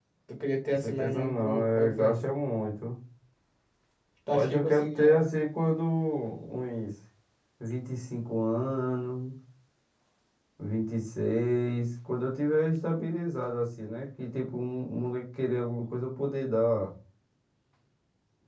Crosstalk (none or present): present